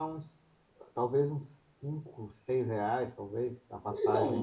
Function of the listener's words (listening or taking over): taking over